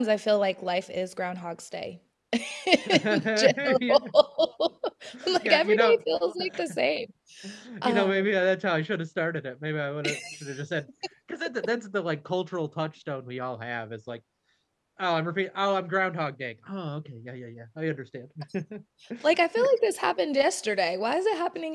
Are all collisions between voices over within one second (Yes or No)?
No